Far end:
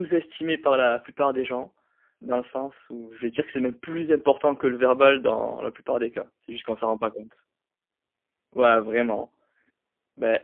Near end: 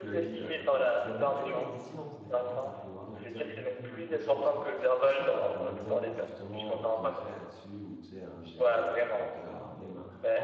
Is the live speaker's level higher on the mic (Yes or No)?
No